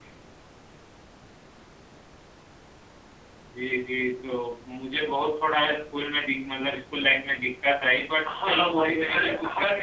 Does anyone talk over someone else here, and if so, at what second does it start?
8.2 s

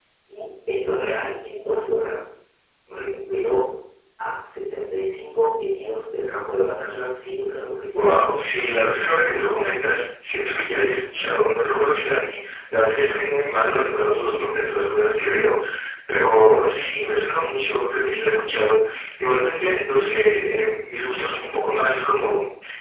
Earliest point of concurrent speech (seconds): none

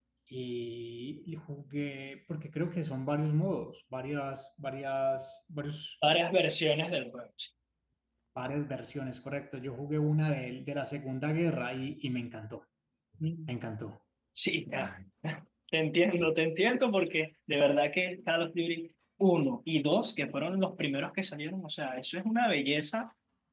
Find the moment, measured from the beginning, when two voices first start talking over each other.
none

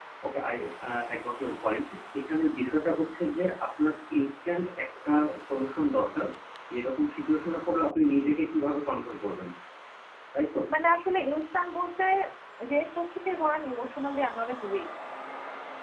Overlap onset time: none

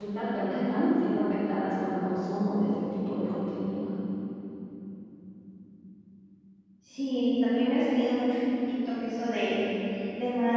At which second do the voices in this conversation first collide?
none

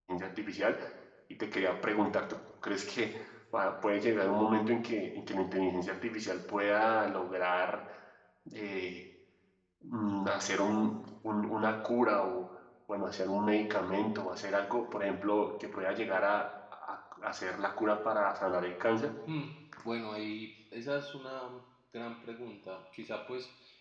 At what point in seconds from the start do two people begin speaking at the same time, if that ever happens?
none

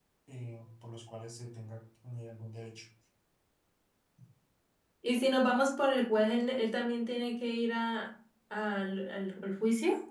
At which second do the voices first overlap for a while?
none

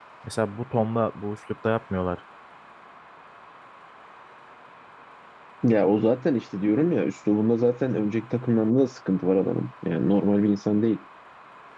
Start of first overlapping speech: none

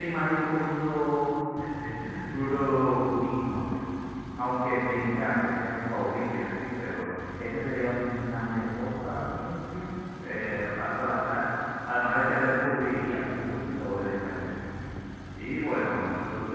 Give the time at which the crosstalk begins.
none

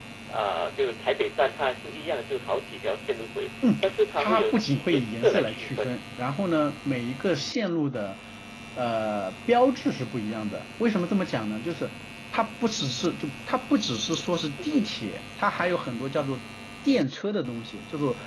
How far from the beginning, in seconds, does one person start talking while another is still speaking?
3.8 s

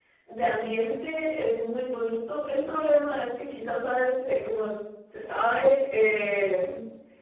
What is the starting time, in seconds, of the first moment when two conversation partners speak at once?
none

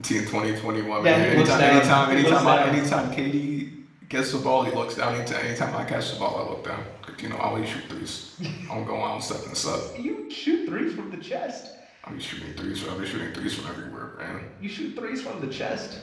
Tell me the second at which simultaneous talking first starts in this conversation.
1.0 s

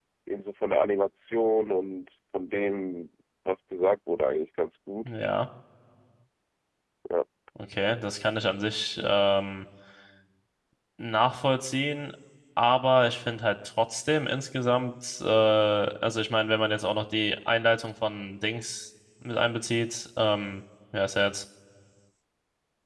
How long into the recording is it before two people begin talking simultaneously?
none

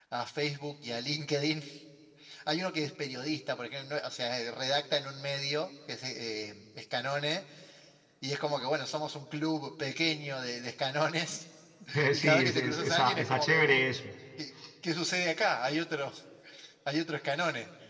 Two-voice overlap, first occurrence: 12.1 s

